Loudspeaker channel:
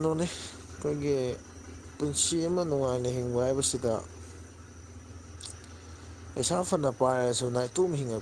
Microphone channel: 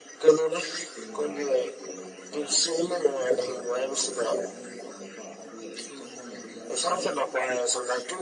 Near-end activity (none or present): present